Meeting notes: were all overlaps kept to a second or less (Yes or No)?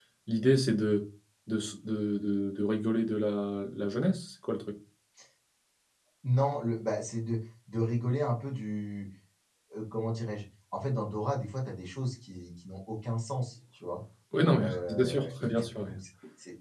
No